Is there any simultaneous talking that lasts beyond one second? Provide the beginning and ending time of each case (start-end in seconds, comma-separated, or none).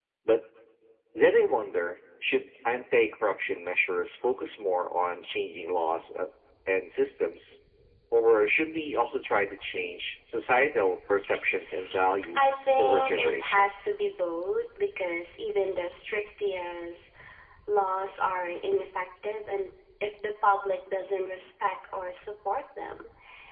12.4-13.9